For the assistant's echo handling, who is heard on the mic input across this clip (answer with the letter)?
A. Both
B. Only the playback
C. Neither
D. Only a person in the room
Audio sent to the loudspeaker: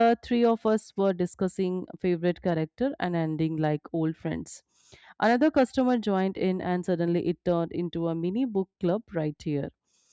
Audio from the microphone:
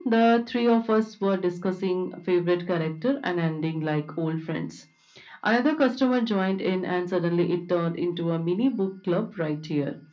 B